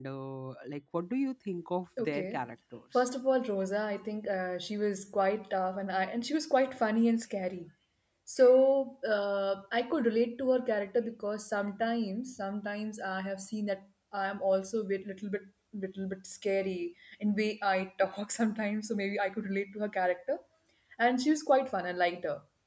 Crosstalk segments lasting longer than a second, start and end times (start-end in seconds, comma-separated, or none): none